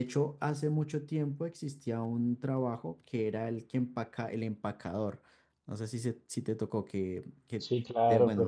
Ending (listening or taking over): taking over